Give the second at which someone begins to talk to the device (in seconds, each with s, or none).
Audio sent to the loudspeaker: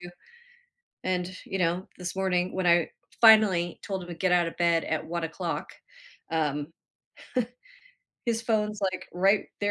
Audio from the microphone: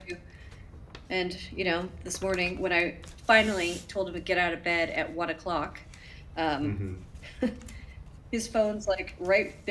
6.6 s